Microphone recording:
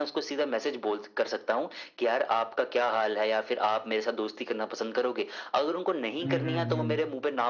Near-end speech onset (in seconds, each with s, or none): 6.2 s